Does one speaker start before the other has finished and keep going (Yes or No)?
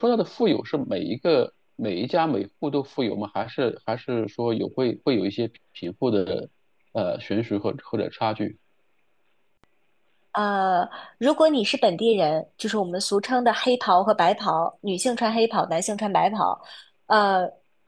No